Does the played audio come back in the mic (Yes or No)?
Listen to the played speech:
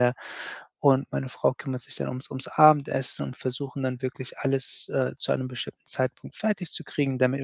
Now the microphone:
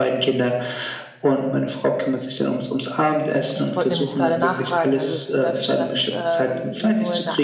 Yes